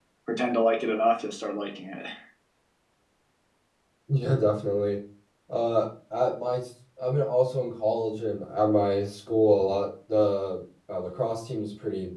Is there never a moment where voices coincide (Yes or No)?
Yes